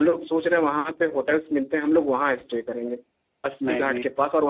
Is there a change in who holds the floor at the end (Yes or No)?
No